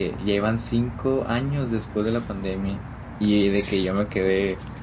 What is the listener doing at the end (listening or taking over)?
listening